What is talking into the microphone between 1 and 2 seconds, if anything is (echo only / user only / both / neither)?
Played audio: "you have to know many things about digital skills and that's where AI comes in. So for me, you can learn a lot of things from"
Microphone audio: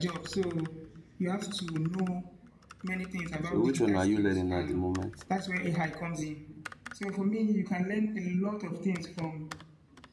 echo only